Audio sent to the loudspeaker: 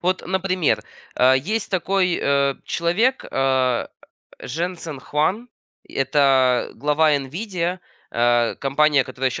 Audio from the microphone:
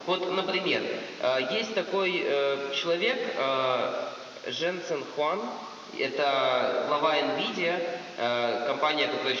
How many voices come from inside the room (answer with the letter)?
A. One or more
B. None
B